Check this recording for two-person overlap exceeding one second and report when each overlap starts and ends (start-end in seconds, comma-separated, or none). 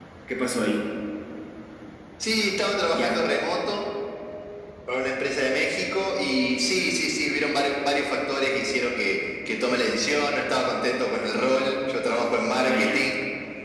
none